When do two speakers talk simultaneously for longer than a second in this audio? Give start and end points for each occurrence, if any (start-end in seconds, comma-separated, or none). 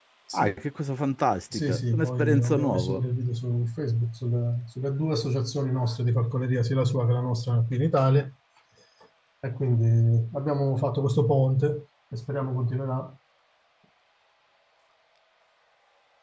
1.5-3.0